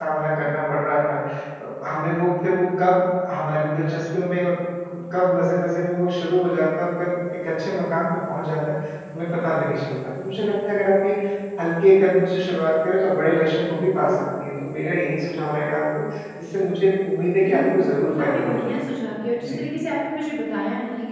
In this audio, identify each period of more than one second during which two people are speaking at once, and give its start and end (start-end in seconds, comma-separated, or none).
17.4-18.8